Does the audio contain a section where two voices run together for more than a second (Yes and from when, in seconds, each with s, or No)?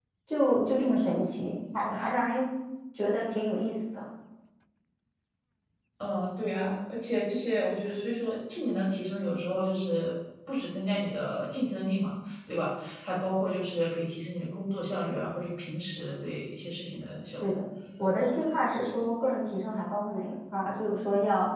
No